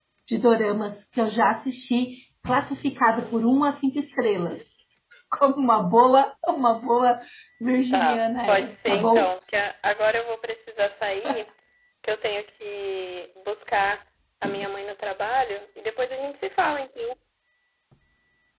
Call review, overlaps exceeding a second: present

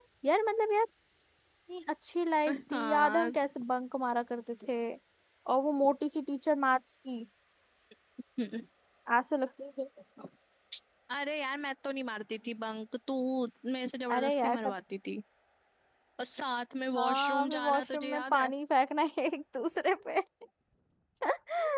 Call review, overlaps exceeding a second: present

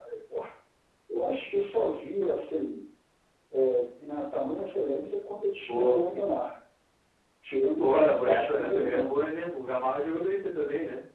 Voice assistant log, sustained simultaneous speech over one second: present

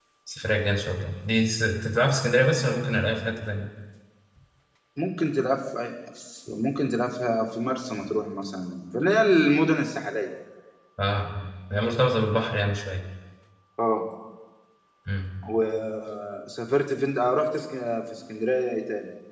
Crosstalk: none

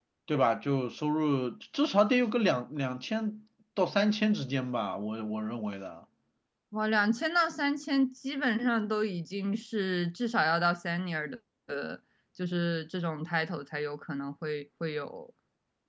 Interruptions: none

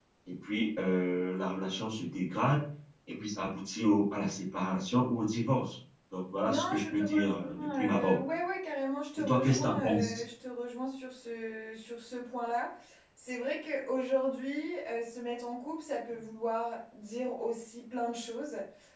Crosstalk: present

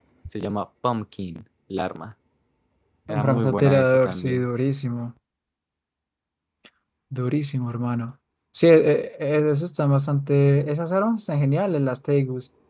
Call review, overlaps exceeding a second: present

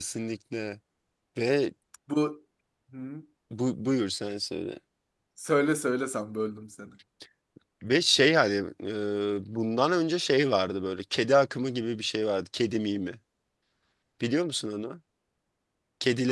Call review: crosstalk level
none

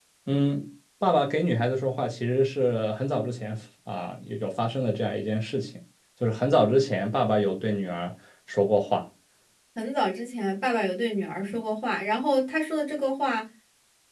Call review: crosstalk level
none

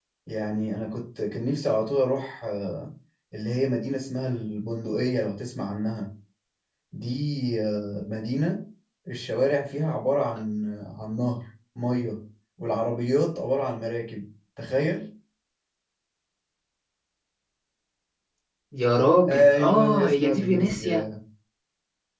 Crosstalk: present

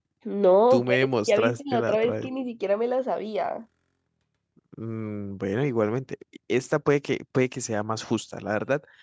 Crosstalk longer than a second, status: present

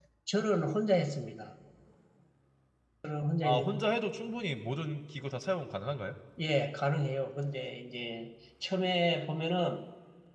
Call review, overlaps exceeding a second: none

